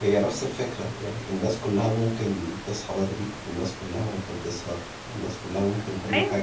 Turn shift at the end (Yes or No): Yes